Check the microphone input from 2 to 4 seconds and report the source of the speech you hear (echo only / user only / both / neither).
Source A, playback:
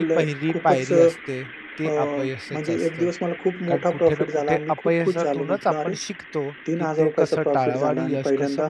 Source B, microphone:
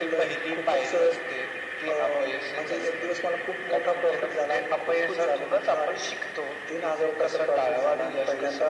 echo only